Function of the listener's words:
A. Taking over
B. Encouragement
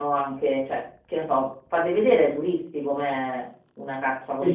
A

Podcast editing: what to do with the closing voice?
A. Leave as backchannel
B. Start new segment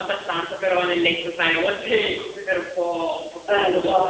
B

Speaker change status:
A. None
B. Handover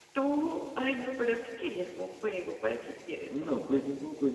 B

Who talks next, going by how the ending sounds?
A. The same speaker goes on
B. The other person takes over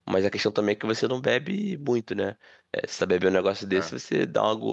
A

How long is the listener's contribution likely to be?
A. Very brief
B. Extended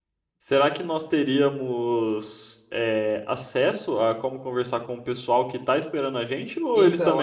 B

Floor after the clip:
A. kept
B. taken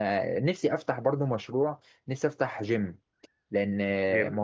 A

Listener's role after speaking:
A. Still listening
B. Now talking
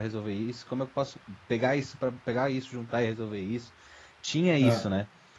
A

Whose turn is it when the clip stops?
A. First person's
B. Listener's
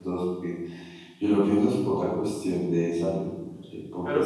B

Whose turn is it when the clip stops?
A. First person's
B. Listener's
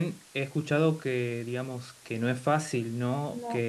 A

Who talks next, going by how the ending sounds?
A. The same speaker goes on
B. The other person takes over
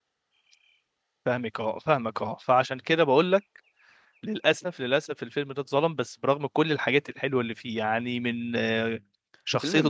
A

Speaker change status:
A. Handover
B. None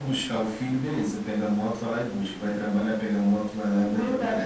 A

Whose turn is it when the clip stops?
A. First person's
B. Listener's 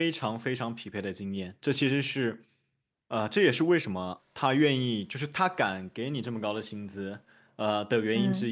A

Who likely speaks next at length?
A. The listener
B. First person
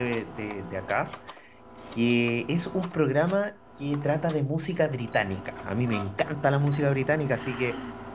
B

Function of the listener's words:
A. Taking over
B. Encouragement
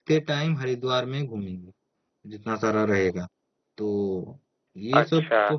A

